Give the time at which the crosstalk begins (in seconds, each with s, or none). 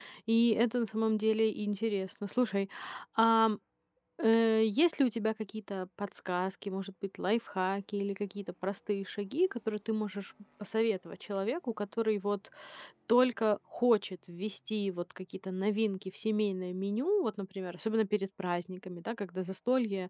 none